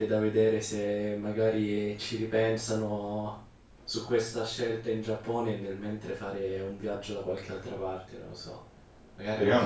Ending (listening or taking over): taking over